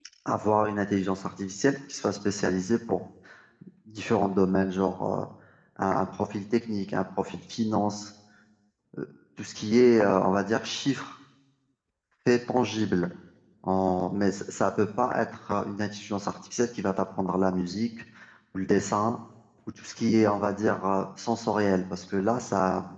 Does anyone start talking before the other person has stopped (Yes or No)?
No